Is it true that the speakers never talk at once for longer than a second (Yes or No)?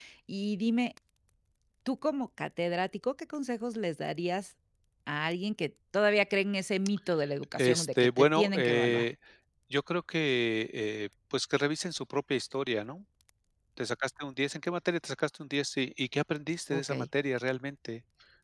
No